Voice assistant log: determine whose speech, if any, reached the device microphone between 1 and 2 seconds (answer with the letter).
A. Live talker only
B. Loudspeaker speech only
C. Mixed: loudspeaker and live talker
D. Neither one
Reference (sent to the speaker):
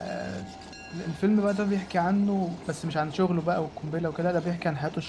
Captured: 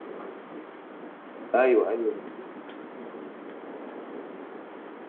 A